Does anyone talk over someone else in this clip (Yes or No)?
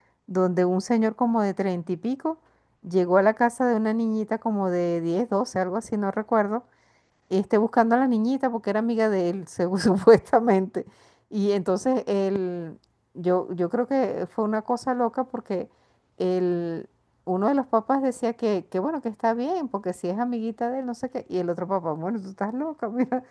No